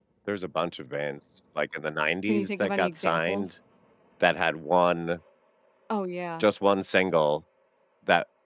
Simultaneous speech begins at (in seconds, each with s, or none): 2.2 s